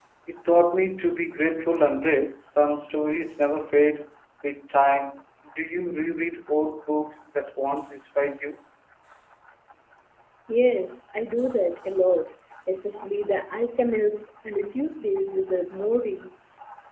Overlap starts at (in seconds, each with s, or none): none